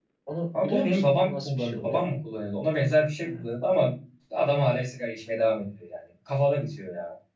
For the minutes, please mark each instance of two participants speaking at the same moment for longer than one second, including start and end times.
0.6-2.0

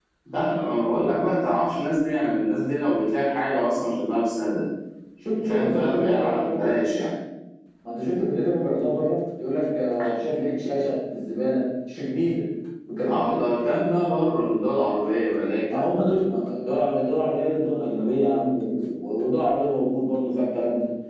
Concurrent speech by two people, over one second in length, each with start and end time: 5.5-6.8

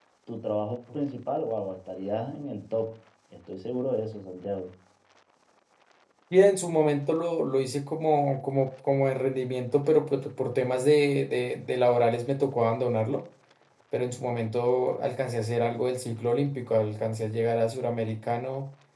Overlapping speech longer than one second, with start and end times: none

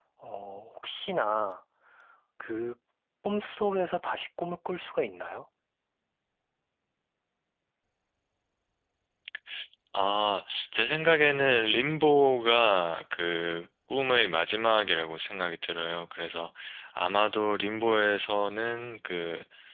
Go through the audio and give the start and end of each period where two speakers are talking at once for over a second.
none

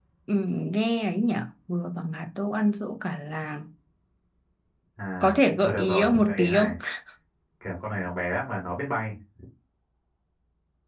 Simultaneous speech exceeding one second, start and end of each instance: 5.2-6.8

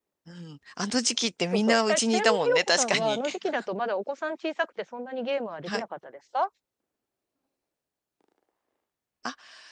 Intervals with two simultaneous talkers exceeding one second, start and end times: 1.5-3.2

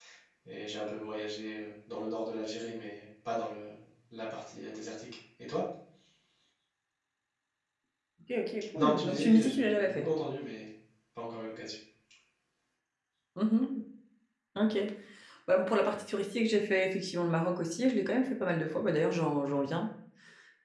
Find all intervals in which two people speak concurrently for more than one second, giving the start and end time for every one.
8.8-10.1

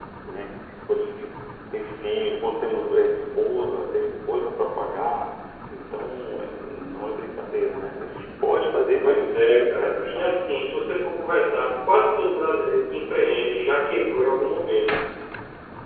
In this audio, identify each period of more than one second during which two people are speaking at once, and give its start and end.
9.0-10.4

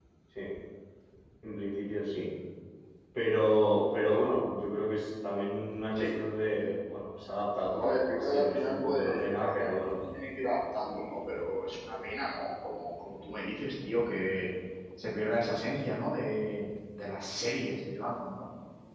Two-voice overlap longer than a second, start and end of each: 7.8-10.0

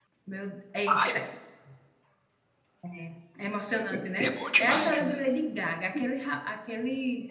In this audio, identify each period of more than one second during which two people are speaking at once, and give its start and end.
3.9-5.2

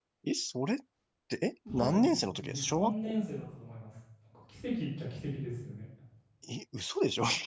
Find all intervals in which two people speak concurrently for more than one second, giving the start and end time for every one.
1.7-3.2

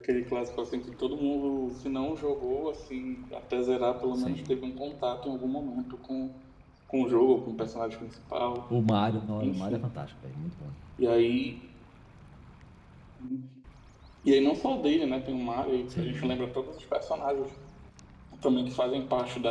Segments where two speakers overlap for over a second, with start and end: none

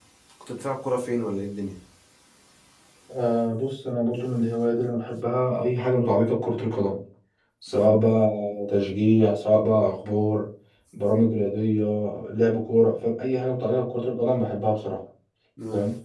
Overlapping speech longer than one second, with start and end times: none

